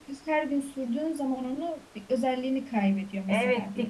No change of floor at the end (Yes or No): No